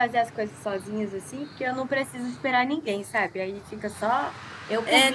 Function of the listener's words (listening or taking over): taking over